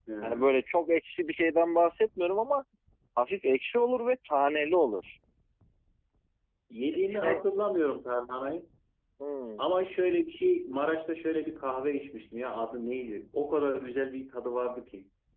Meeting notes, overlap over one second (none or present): none